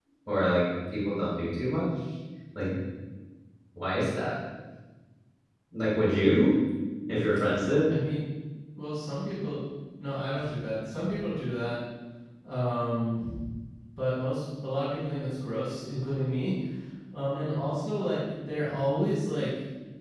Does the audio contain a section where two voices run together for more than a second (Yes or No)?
No